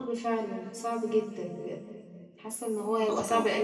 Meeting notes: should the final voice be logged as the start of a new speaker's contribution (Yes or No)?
No